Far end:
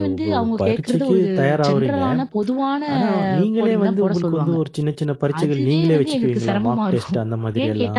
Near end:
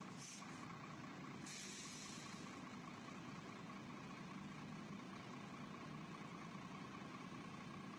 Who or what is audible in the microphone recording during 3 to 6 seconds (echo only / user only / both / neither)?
neither